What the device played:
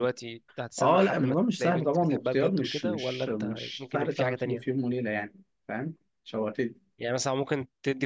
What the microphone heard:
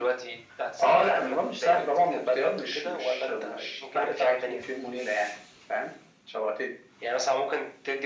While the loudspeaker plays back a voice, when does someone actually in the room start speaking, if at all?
none

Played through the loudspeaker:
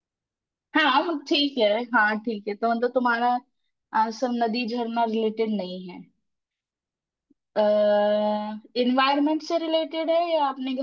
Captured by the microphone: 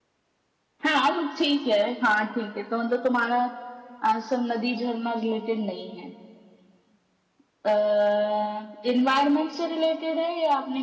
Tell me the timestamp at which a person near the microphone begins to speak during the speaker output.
none

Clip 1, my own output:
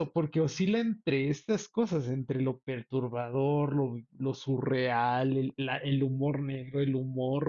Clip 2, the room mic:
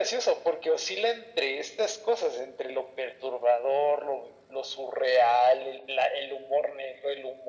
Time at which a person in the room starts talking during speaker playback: none

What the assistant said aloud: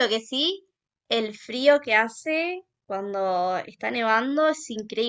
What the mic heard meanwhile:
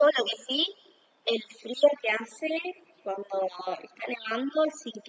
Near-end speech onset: none

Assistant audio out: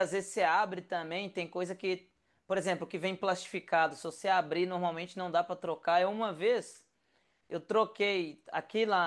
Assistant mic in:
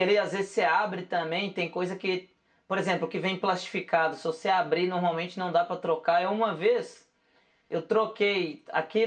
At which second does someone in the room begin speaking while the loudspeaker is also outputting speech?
none

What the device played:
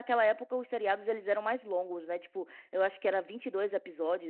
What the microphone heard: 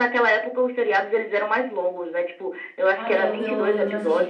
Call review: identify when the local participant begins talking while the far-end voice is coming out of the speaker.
3.0 s

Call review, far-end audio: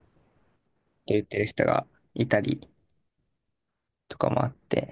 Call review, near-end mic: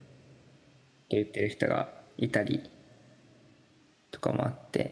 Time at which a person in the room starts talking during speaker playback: none

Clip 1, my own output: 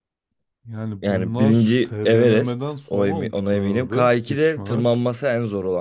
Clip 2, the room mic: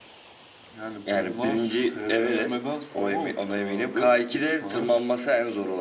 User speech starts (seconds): none

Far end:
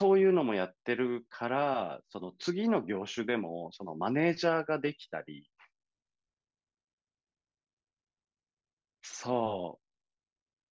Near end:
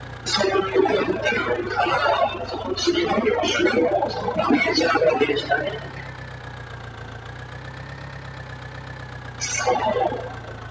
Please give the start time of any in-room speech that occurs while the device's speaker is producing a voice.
none

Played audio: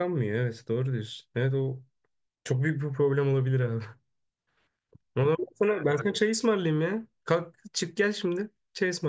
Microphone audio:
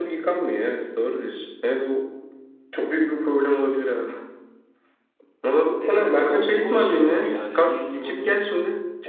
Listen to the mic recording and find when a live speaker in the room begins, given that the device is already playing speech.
5.8 s

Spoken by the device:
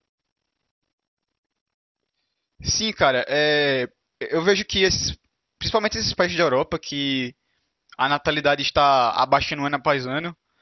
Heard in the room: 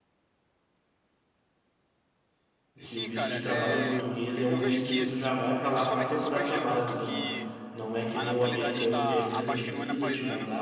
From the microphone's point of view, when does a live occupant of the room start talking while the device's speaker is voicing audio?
2.8 s

